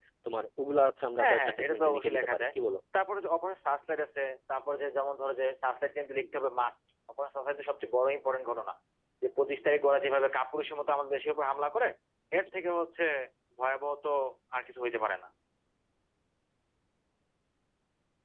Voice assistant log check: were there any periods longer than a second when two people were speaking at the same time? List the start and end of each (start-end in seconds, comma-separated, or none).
1.2-2.4